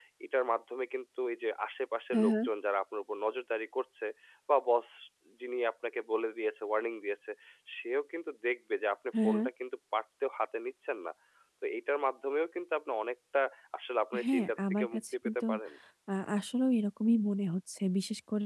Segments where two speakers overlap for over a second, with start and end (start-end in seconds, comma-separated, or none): 14.2-15.4